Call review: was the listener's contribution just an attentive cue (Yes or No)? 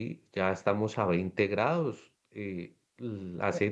Yes